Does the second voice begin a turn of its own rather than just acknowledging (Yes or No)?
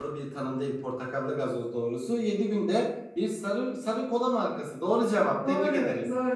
Yes